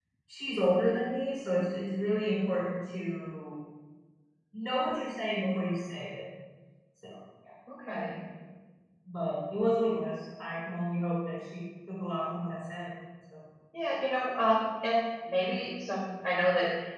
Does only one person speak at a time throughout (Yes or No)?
Yes